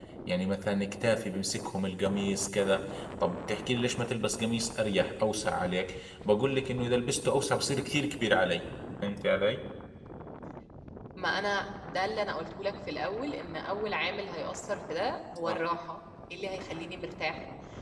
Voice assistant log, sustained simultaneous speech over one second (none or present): none